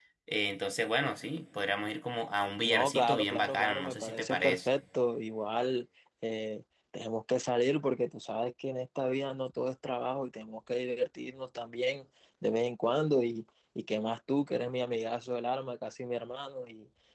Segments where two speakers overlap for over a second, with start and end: 2.6-4.7

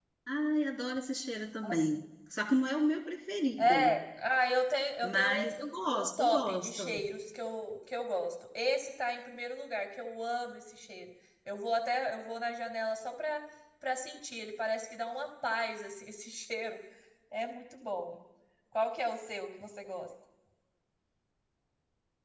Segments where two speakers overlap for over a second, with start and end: 5.0-7.0

